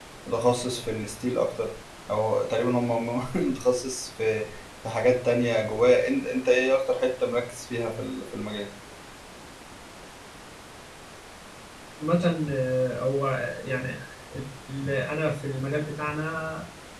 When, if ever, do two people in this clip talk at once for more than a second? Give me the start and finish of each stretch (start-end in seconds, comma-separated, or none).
none